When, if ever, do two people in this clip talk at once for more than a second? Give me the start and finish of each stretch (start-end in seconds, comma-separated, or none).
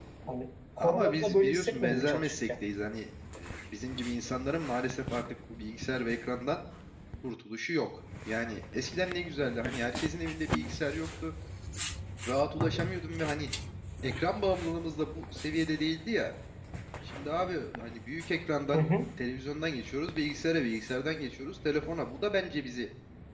0.8-2.5